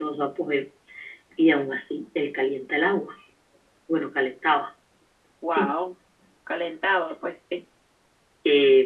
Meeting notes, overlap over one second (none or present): none